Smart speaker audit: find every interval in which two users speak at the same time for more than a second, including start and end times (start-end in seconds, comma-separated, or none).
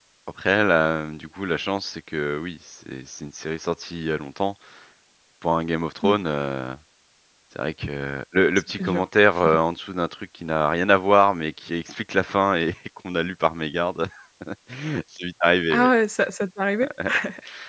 none